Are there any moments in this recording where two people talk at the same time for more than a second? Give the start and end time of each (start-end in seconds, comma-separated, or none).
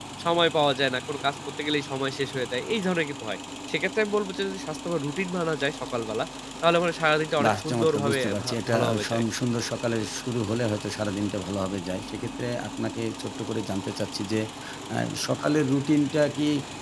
7.4-9.2